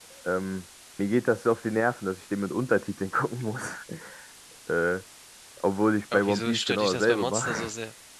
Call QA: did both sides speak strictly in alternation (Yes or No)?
No